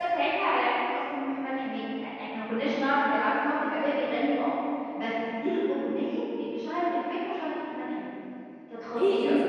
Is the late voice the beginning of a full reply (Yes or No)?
Yes